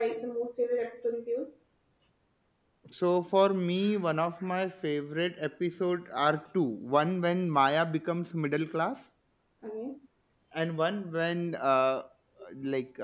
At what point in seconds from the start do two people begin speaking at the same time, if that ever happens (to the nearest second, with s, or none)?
none